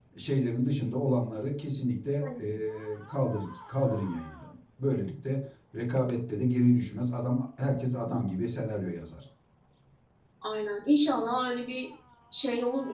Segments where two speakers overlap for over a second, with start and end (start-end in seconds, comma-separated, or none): none